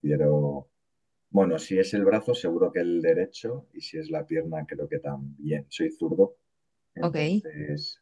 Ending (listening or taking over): listening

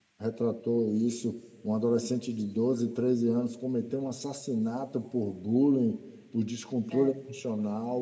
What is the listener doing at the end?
listening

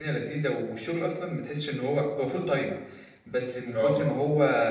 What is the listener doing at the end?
listening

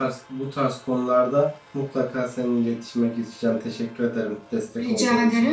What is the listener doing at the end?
taking over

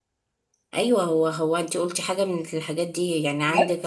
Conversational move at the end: listening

